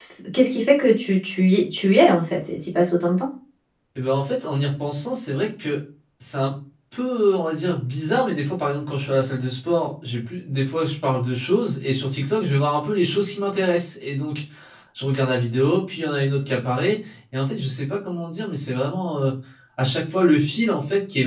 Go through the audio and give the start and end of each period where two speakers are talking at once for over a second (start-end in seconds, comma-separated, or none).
none